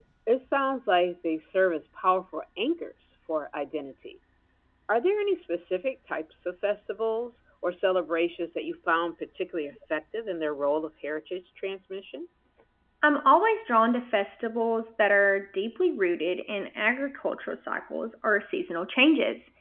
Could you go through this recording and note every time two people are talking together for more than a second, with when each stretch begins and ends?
none

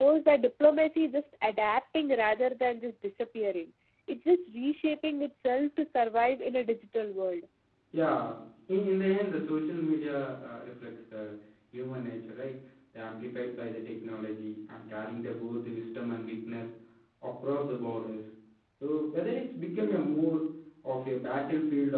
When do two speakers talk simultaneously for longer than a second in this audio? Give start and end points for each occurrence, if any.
none

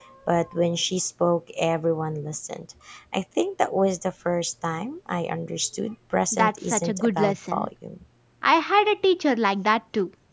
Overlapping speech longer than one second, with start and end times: 6.3-7.7

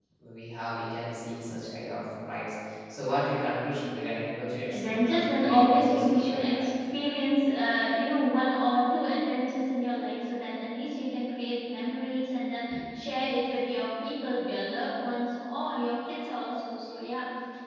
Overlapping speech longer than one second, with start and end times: 4.7-6.7

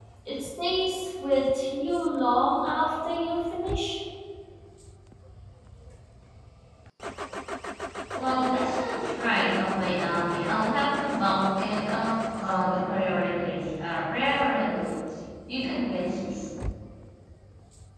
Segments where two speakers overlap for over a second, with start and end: none

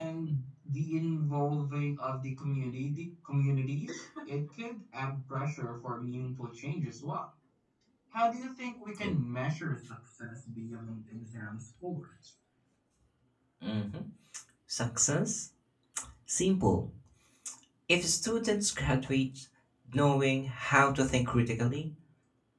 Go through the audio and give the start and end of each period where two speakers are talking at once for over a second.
none

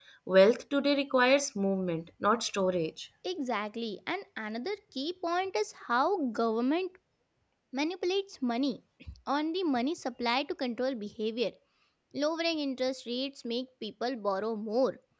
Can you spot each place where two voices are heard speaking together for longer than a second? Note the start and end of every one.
none

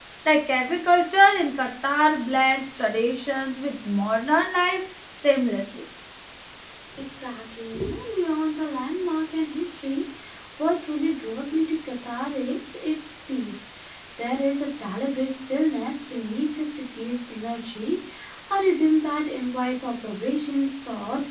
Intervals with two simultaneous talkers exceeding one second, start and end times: none

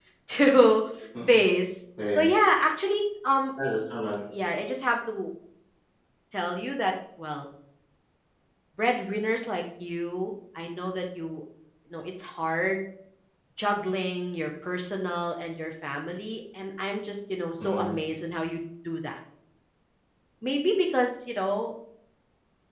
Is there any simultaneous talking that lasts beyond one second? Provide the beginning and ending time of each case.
none

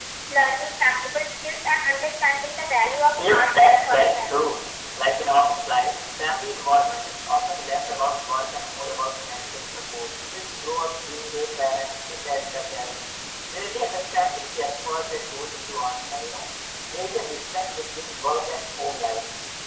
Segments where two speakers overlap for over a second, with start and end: 3.2-4.5

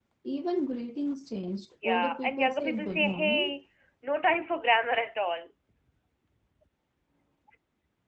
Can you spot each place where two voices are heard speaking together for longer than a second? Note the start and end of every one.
1.8-3.6

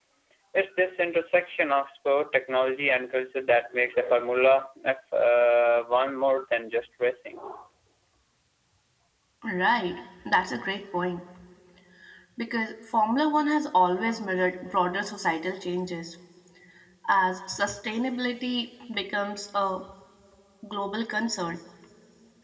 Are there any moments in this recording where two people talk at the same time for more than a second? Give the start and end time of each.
none

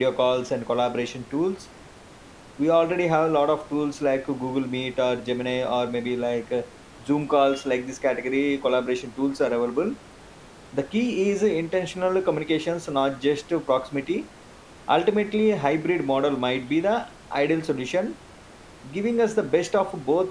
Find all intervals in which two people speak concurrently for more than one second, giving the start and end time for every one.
none

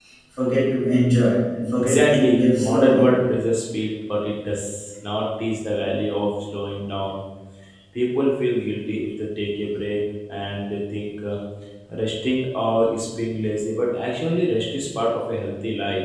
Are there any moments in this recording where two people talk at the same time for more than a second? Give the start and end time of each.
1.8-3.1

